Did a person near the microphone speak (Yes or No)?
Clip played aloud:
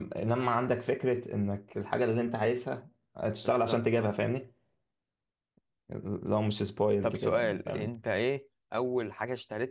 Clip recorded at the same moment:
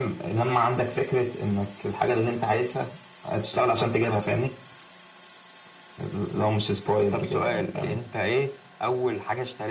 No